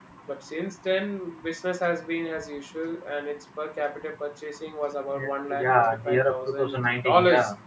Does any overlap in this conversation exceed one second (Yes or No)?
Yes